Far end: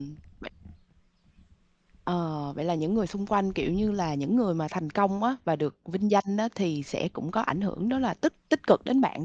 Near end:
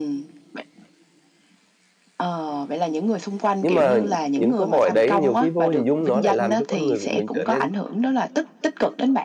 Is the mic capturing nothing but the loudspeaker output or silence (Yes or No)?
No